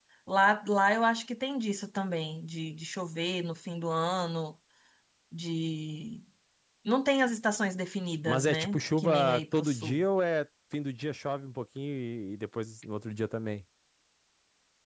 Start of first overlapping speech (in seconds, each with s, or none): 8.3 s